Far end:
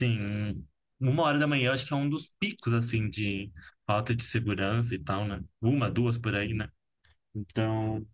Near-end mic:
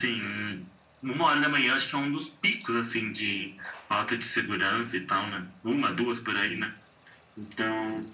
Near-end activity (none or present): none